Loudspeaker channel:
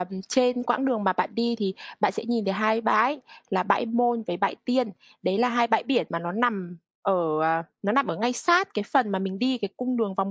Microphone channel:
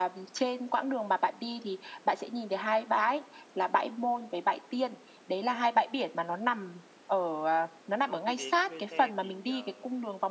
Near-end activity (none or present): present